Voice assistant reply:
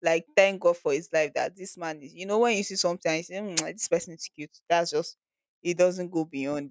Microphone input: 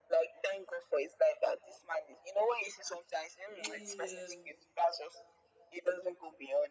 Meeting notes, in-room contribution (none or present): present